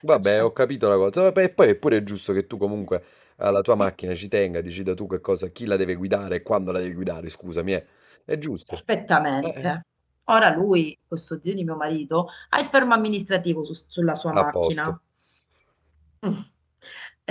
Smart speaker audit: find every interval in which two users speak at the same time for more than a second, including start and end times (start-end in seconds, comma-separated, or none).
none